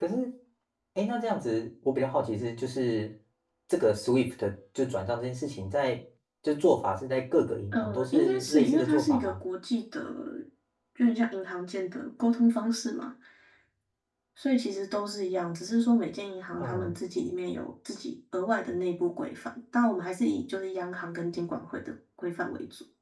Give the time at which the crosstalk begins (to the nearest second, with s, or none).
8 s